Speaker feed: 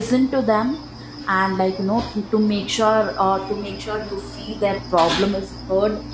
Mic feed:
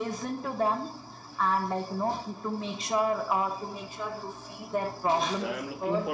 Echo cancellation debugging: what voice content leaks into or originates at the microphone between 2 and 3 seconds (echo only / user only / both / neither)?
echo only